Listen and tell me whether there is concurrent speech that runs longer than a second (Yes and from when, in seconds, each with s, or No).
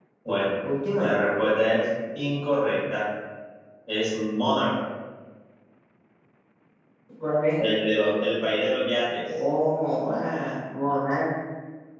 No